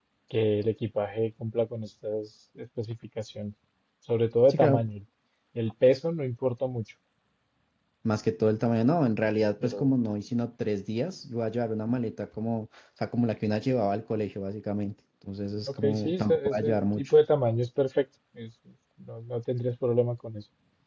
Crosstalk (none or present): present